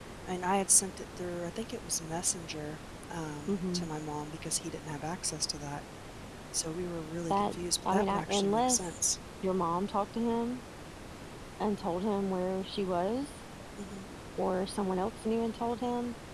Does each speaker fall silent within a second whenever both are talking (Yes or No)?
No